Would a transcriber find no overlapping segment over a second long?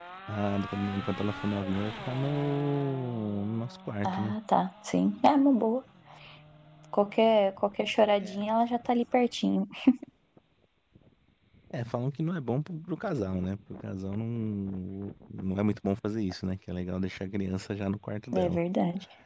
Yes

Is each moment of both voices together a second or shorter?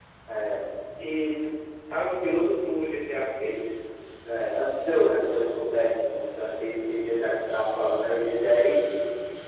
Yes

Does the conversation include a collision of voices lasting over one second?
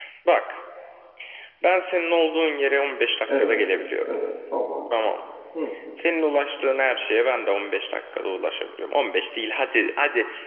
No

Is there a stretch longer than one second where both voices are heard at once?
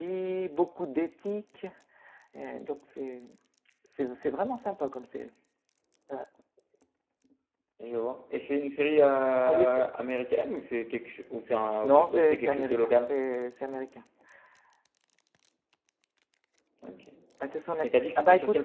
Yes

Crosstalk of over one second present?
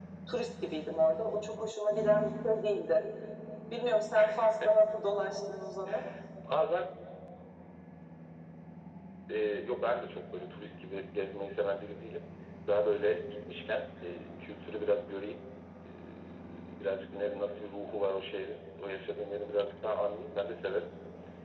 No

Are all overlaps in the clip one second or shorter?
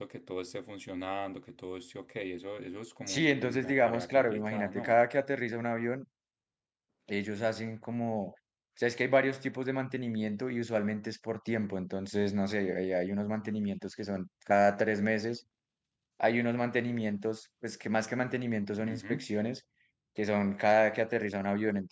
No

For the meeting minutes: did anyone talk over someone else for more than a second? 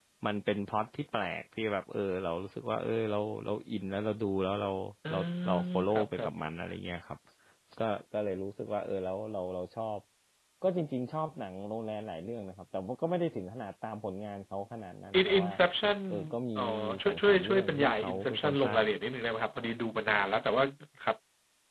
Yes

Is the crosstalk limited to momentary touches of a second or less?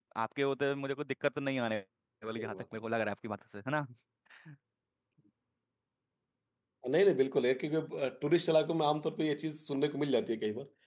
Yes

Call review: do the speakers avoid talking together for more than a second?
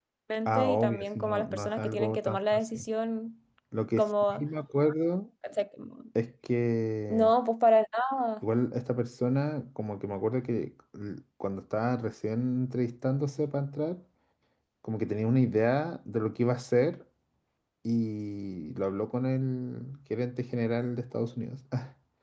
No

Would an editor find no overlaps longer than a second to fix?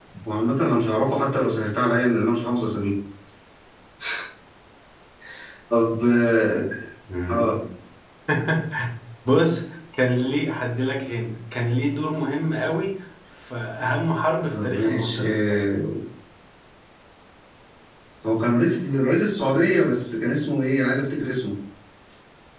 No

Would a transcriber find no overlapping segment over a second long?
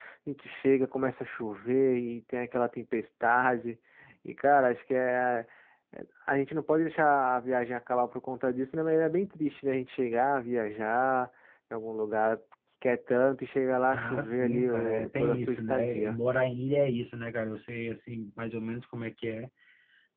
No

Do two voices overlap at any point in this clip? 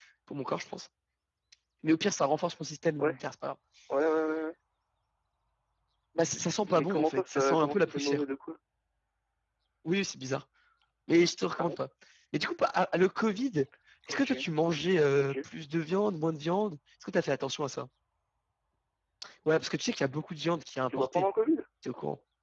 Yes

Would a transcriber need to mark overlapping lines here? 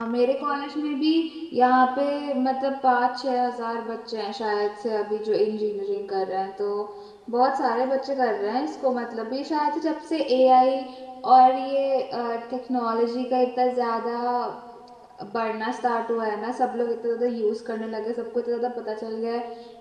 No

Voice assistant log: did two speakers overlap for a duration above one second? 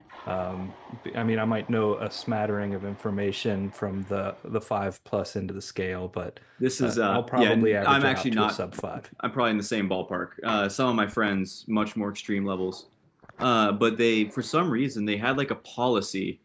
Yes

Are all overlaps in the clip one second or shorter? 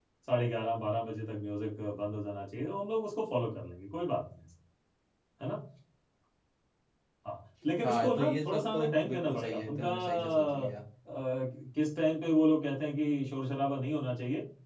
No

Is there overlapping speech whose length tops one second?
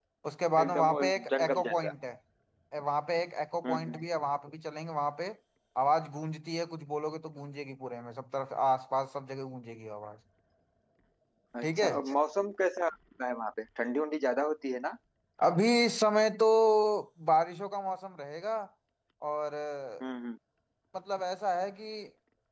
Yes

